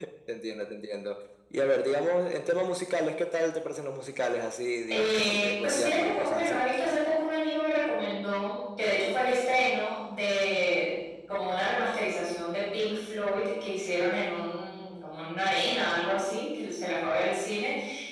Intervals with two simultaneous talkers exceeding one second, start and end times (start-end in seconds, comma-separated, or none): 4.9-6.6